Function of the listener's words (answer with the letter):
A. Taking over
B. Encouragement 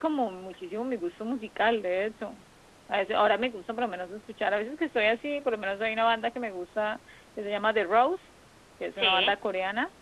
B